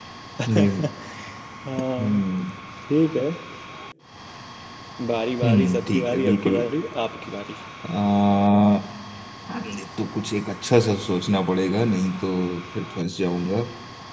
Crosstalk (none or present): present